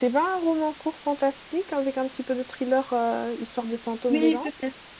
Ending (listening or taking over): taking over